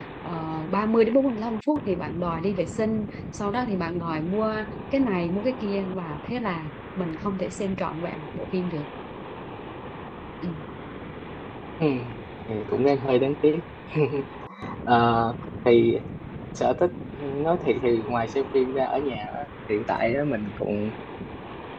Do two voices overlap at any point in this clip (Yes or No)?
No